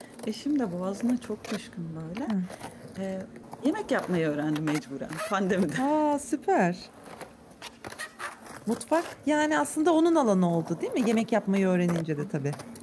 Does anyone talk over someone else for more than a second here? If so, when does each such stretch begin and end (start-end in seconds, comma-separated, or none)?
none